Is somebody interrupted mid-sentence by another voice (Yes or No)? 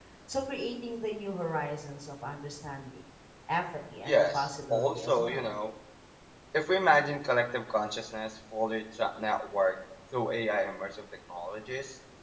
Yes